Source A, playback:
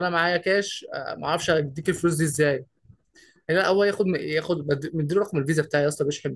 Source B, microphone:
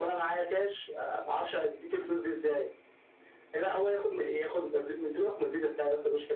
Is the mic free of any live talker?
Yes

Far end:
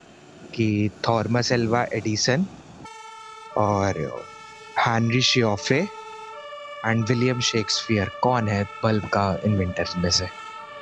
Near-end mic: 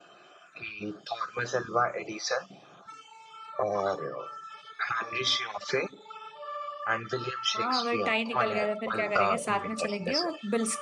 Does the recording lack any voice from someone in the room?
No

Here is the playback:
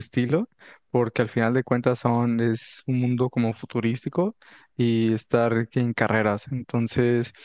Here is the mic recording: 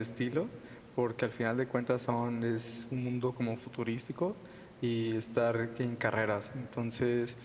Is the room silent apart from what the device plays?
Yes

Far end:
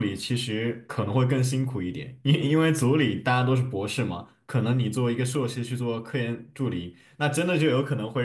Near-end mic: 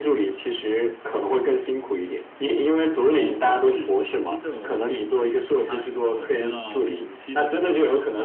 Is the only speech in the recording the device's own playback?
No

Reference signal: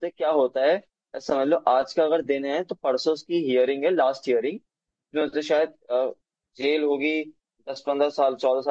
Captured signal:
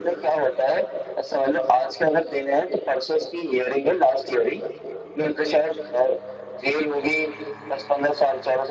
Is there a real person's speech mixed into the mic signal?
No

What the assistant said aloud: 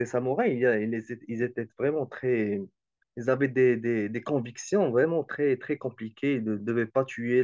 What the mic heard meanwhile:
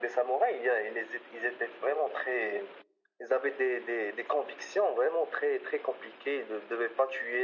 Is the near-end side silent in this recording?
Yes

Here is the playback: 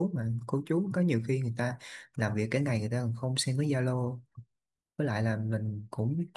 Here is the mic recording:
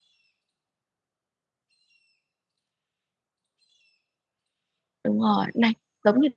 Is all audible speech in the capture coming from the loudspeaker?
No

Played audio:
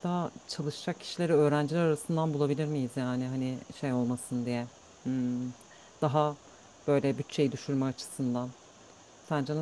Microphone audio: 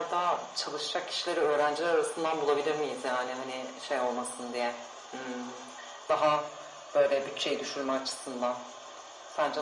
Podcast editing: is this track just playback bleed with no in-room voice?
Yes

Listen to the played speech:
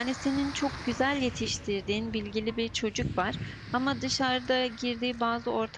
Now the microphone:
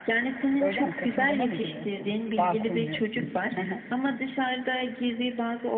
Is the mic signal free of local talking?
No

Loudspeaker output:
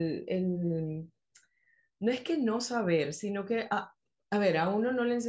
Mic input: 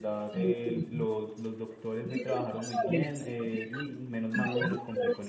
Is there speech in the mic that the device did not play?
Yes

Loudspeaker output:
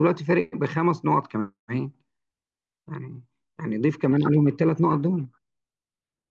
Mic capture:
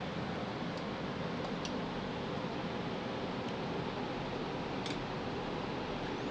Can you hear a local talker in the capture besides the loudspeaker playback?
No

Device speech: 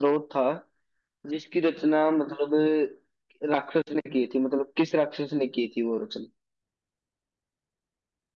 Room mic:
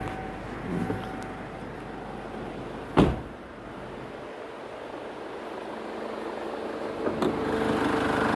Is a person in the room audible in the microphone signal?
No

